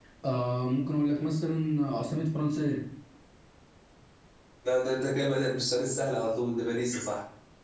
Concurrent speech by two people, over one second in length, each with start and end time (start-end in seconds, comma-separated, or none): none